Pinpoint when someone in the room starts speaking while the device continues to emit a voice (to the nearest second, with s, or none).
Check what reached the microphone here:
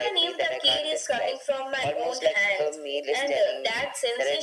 none